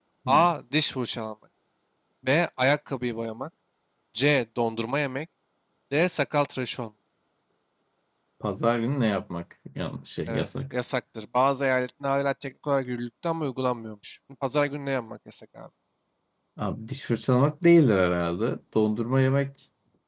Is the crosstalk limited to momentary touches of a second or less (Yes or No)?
Yes